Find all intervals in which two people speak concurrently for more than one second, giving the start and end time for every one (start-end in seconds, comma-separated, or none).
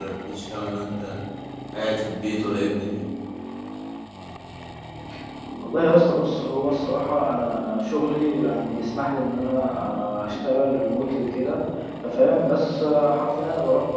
none